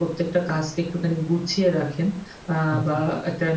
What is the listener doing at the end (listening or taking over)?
listening